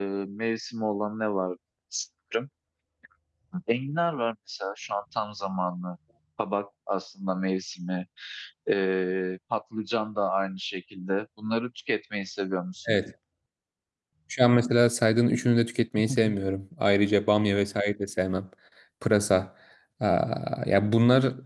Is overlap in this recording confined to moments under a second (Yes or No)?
Yes